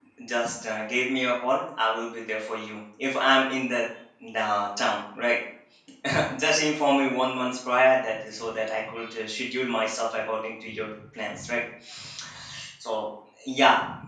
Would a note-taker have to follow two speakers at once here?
No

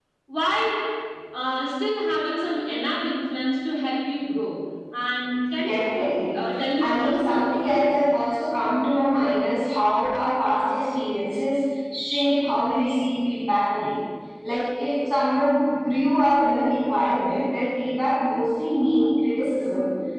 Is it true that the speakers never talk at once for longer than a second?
No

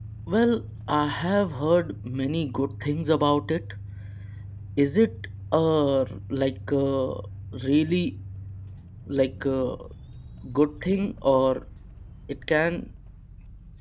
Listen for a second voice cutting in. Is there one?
No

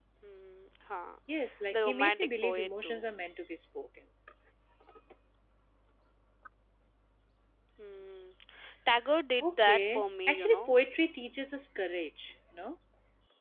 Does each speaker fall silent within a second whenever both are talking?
No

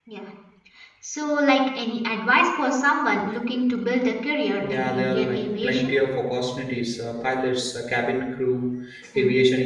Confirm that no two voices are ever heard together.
No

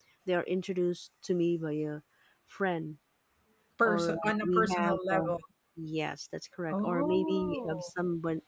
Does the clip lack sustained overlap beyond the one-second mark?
No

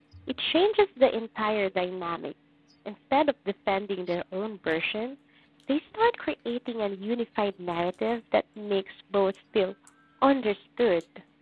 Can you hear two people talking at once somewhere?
No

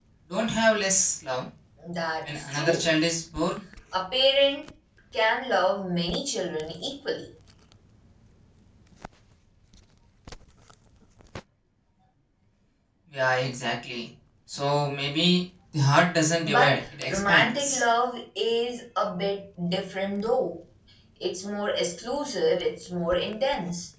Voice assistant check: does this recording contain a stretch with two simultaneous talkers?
Yes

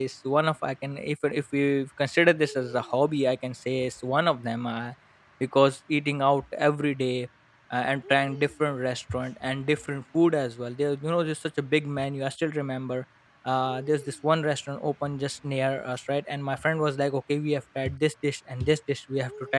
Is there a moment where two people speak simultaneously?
No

